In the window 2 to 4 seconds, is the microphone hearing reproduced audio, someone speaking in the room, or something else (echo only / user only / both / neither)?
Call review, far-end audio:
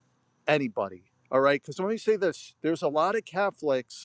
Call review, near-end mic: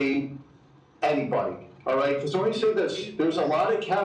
both